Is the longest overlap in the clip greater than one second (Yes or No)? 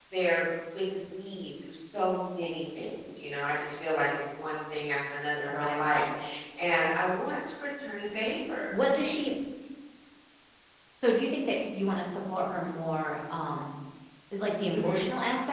No